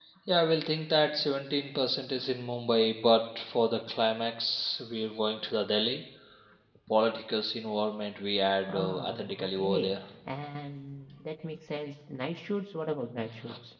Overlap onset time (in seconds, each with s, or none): 8.7 s